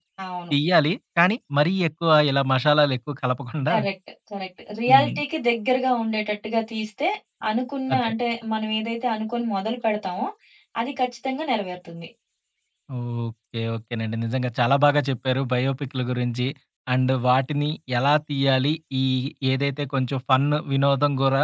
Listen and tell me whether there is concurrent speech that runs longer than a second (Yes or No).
No